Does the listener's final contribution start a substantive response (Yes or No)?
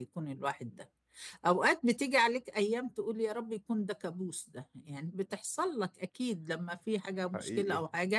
No